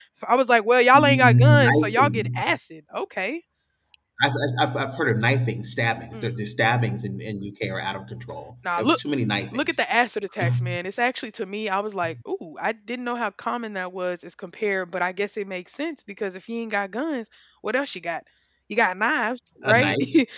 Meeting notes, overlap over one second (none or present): present